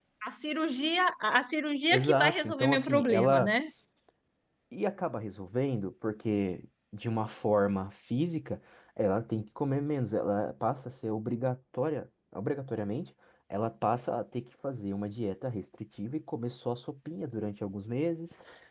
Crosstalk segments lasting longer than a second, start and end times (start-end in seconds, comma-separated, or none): 1.9-3.5